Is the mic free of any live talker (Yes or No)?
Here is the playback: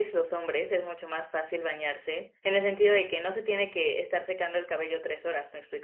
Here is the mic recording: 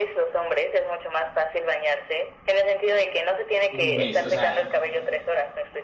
No